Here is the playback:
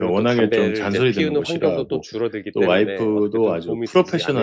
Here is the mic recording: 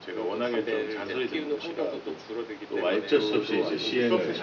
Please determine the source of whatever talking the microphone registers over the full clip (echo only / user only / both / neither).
both